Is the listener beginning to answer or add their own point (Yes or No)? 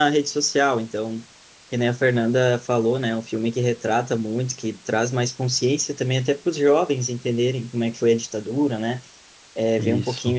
No